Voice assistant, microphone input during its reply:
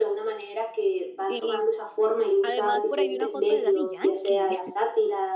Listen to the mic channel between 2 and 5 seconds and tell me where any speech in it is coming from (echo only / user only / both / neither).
both